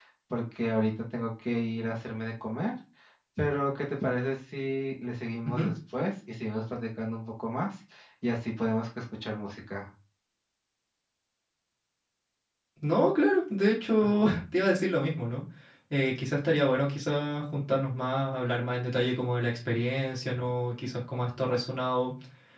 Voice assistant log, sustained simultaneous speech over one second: none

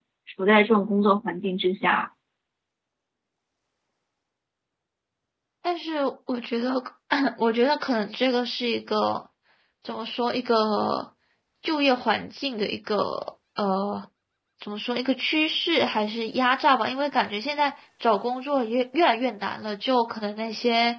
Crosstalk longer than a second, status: none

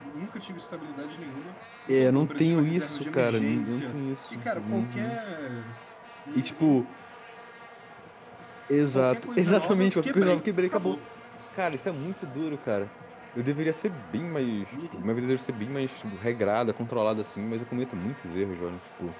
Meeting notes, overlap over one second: present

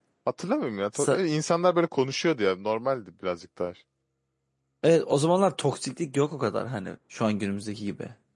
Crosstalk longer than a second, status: none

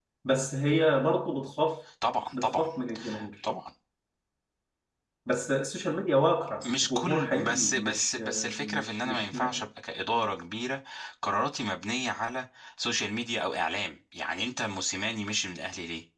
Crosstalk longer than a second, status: present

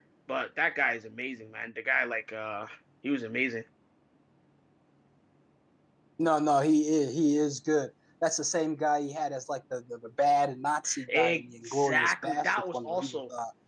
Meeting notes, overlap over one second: present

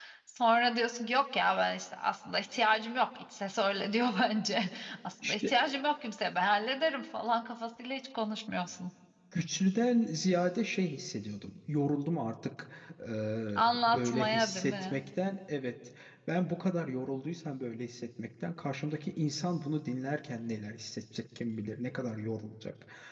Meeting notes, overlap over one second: present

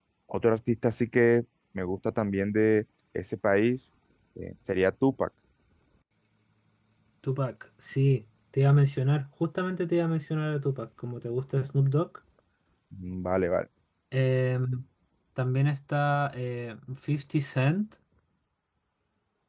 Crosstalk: none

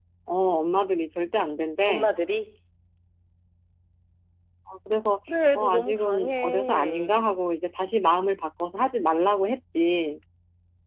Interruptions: present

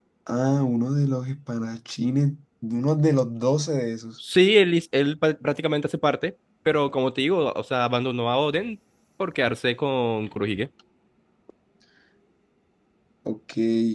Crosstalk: none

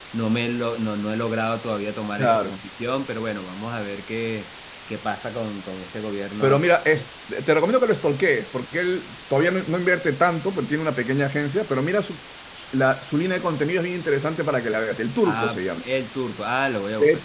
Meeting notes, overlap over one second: none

